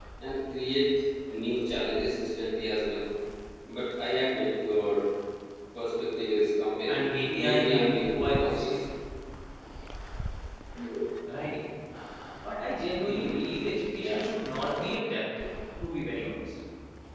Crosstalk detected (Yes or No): Yes